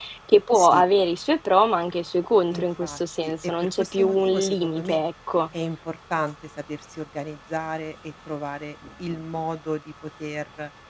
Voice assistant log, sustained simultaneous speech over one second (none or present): present